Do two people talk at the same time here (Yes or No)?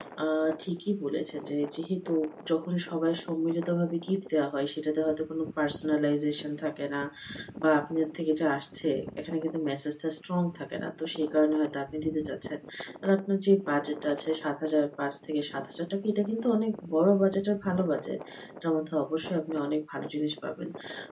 No